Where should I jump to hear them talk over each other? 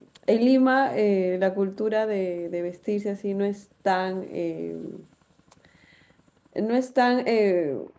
none

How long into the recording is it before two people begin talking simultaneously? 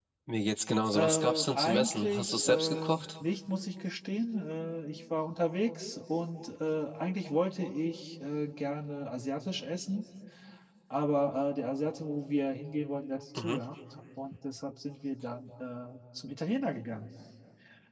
0.9 s

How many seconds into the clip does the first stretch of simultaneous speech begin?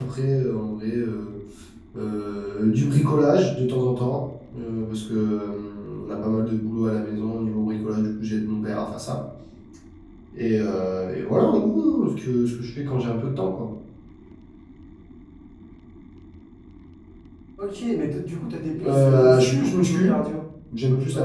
18.8 s

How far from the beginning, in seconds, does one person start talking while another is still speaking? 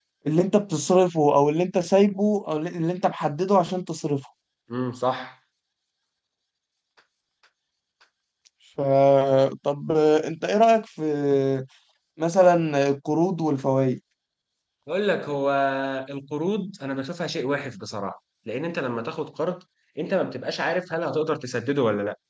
none

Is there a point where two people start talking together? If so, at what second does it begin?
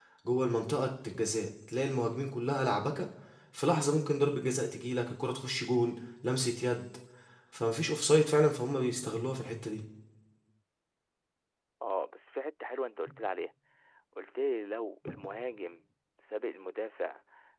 none

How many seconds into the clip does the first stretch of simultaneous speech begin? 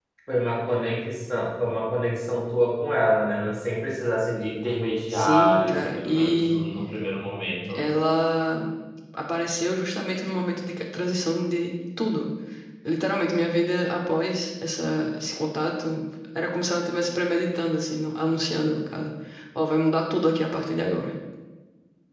5.1 s

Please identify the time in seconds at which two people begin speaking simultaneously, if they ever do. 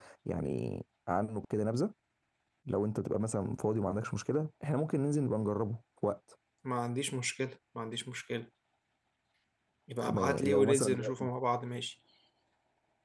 10.0 s

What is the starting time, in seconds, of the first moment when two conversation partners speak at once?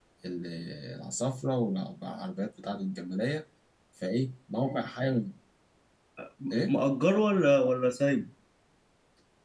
none

